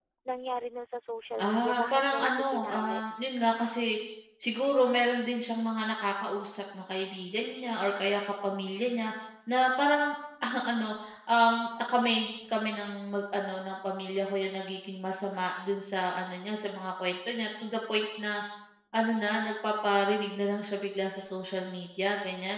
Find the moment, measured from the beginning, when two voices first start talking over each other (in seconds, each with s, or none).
1.4 s